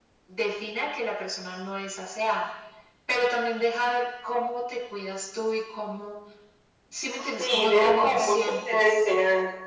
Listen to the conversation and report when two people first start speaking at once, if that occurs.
7.4 s

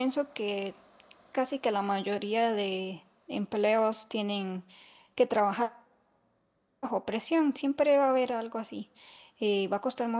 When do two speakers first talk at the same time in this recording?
none

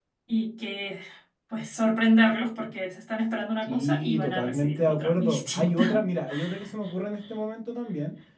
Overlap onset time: 3.7 s

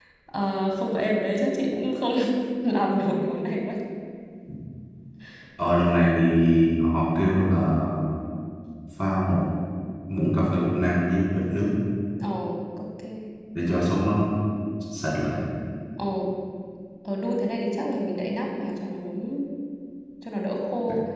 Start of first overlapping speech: none

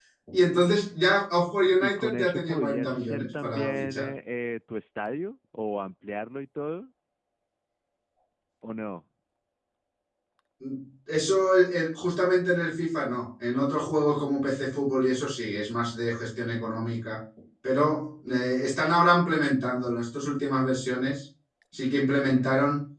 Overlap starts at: 1.8 s

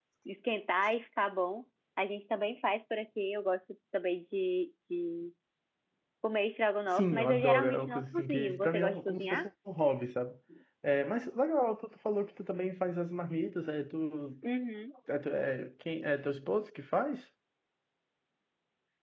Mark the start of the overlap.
6.9 s

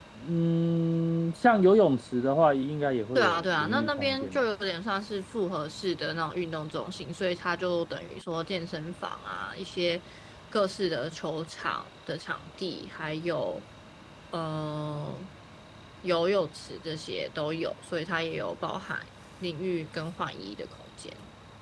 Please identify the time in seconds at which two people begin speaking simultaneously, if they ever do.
3.1 s

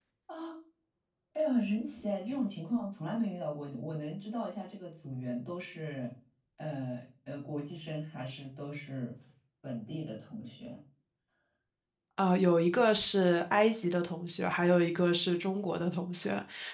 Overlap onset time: none

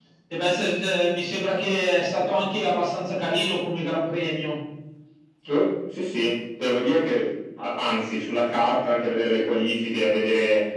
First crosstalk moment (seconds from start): none

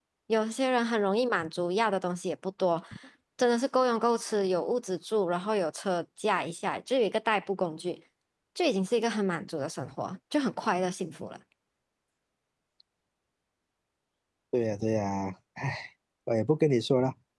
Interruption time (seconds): none

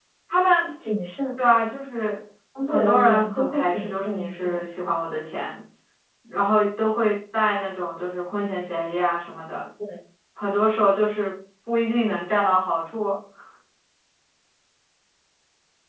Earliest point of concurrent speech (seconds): 2.5 s

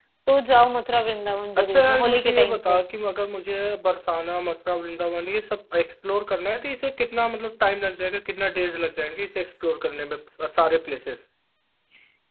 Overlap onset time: 1.6 s

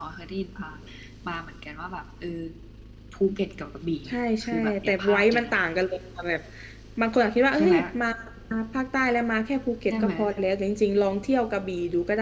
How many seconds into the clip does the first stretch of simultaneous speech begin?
4.0 s

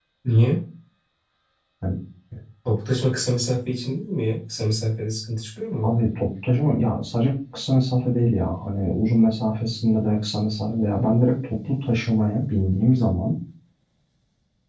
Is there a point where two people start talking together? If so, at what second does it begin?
none

